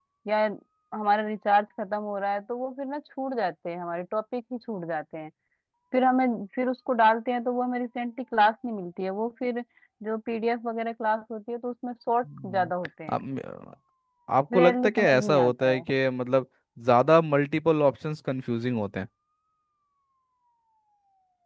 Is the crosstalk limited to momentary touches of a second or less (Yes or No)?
No